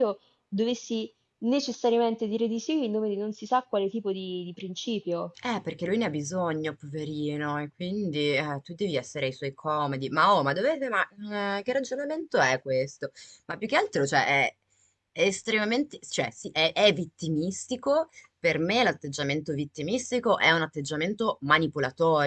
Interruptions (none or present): none